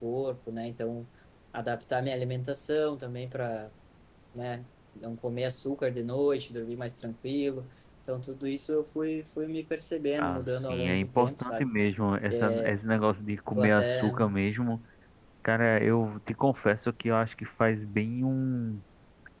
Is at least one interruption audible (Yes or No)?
Yes